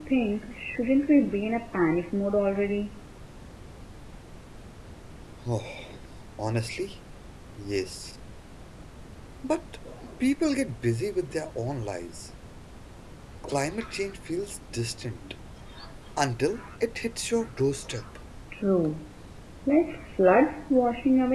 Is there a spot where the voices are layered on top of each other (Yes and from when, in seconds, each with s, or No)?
No